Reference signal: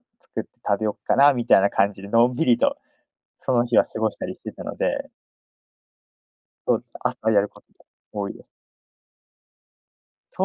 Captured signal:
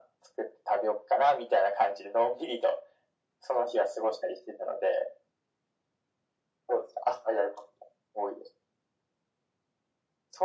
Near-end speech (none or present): none